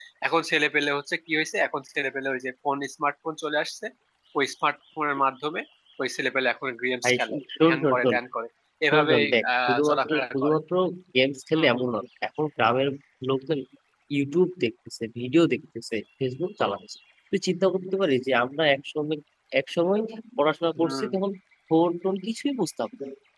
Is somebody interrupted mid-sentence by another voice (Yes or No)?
Yes